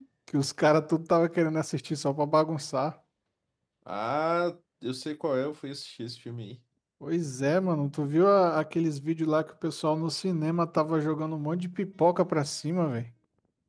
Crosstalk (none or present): none